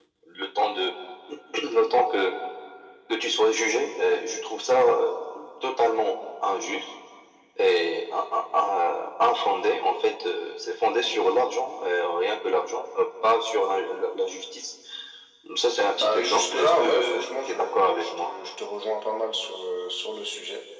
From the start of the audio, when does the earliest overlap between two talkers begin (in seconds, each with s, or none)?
16.0 s